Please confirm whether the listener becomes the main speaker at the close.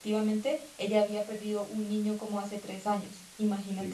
Yes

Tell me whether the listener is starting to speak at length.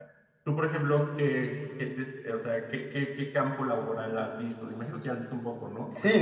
Yes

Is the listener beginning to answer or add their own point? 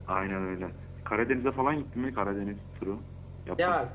Yes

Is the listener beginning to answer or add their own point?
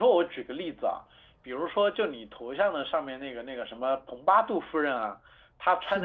No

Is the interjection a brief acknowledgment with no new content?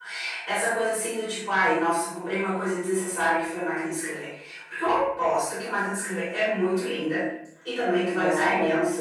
Yes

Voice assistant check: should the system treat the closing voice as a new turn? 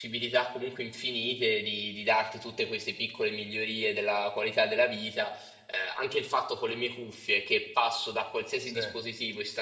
No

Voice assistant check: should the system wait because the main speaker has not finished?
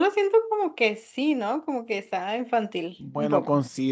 No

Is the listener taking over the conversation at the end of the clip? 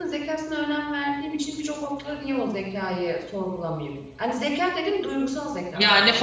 Yes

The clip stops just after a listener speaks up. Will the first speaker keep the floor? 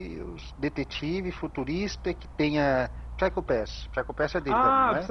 No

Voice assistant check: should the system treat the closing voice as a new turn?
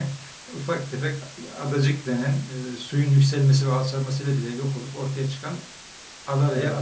No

